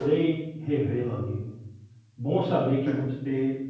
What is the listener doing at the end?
listening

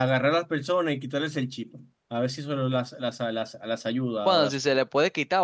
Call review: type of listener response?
taking over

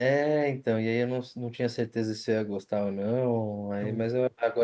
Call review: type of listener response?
listening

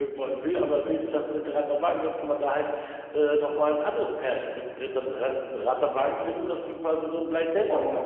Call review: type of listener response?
taking over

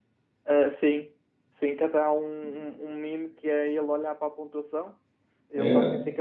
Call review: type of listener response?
listening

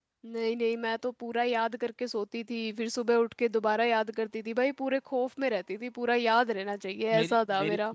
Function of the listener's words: taking over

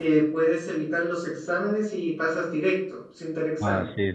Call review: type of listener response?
taking over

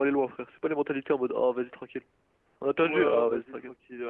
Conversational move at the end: taking over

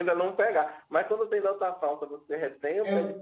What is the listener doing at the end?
listening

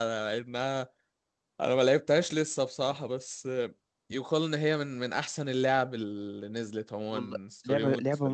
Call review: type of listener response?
taking over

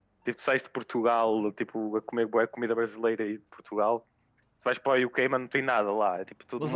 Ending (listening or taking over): taking over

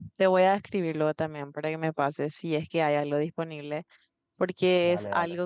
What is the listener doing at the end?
listening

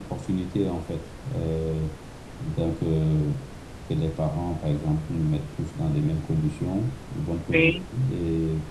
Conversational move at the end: listening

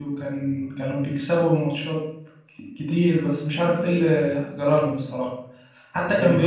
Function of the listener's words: listening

